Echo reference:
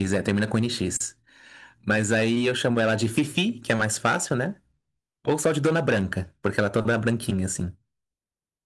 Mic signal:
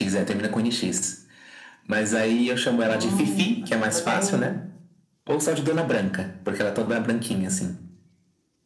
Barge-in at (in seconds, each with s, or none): 2.9 s